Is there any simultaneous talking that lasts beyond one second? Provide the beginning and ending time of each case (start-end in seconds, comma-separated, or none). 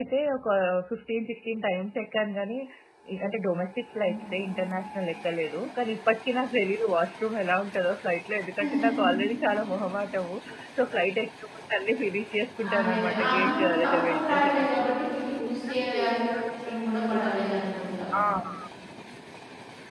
12.8-14.9